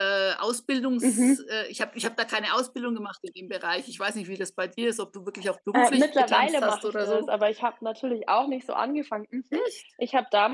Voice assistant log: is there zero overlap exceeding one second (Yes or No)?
No